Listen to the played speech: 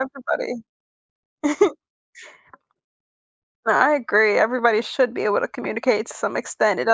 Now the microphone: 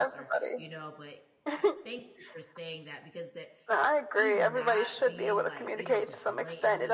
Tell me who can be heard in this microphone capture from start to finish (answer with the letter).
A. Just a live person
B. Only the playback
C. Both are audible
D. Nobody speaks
C